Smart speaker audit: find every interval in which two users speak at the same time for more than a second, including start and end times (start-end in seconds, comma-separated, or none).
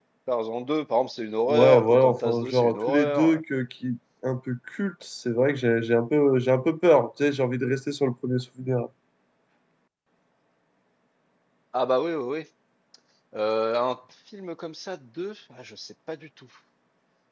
1.5-3.6